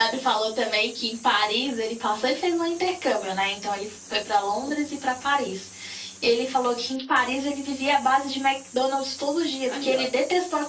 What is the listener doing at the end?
listening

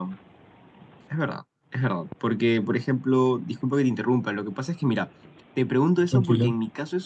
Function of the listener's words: listening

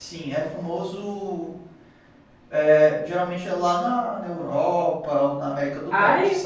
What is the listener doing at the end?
taking over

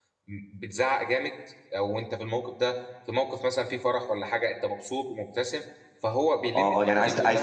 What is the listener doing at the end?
taking over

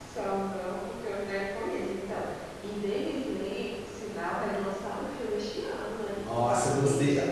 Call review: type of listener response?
taking over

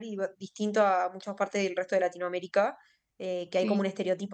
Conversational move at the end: listening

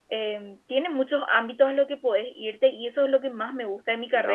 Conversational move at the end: listening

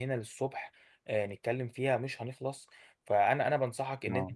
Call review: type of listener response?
listening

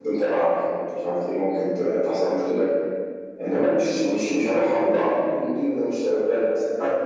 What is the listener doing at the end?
taking over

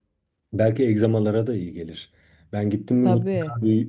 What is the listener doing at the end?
listening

